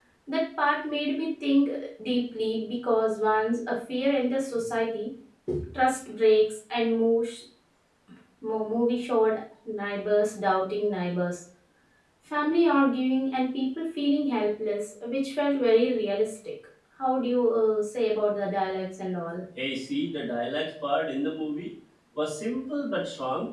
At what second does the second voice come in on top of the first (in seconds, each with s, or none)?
none